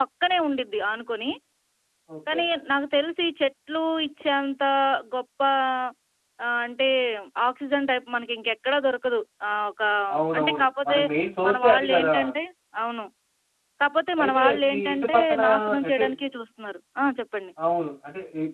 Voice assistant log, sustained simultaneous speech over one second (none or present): present